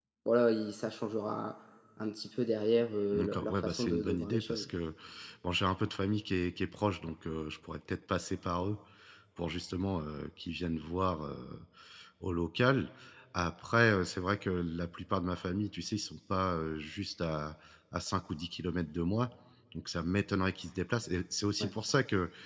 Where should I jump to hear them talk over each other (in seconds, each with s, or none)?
3.1 s